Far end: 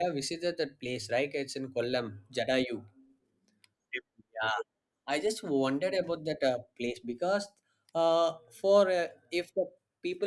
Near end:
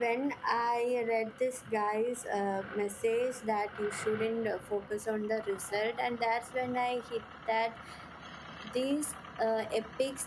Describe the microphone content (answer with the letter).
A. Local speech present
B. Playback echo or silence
A